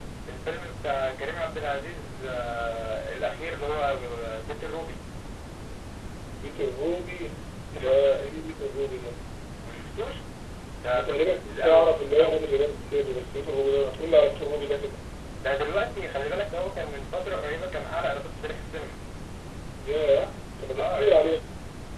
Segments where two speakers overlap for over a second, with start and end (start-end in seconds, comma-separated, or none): 10.9-12.4